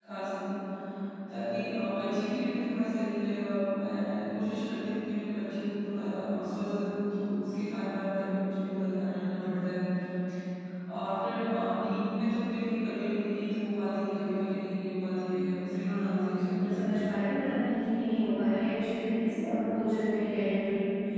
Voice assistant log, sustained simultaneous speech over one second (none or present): present